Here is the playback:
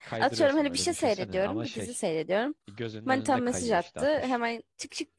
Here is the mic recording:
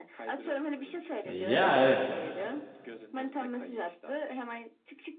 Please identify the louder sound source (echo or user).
user